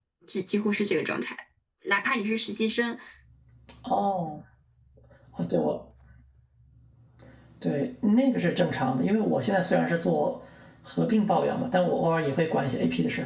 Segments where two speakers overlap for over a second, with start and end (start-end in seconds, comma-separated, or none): none